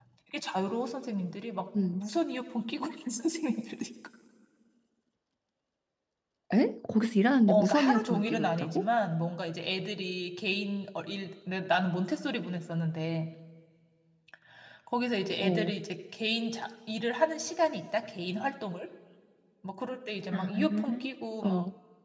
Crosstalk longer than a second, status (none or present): present